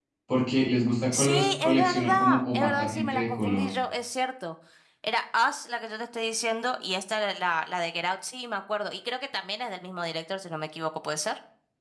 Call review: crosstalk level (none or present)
present